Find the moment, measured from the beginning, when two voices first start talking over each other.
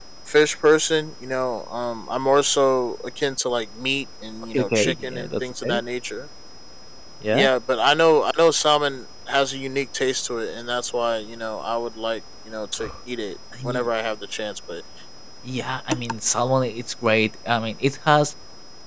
4.5 s

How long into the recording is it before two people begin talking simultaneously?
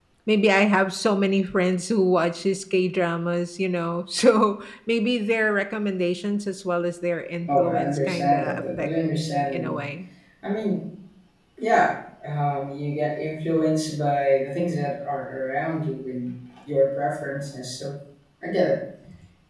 7.5 s

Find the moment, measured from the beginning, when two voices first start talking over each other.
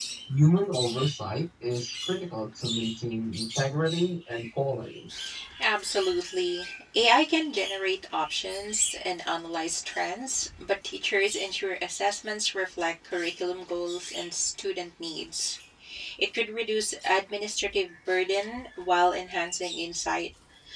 none

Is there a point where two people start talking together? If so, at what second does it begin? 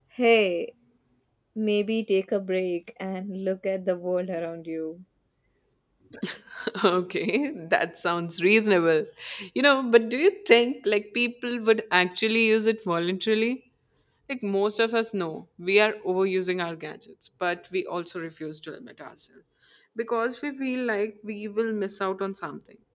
none

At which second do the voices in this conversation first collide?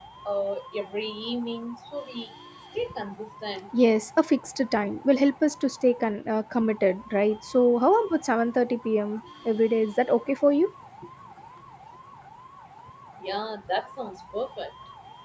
none

